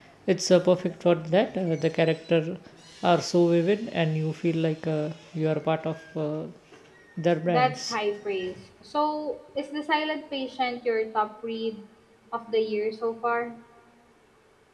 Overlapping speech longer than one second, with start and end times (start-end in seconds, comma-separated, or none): none